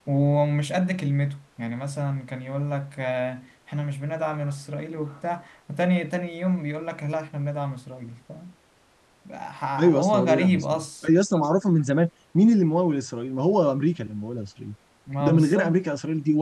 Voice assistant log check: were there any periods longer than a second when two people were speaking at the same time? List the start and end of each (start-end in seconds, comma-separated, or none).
9.8-11.1